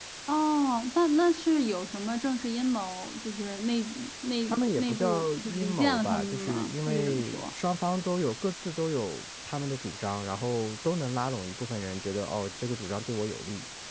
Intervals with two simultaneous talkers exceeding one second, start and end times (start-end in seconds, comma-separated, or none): 4.5-7.5